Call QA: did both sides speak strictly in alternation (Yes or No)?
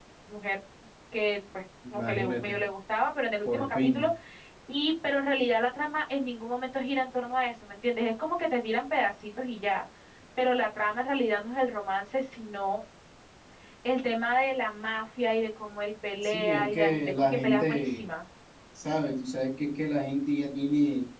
No